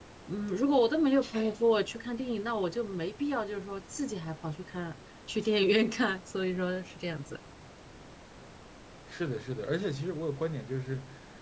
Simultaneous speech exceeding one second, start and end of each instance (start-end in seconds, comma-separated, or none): none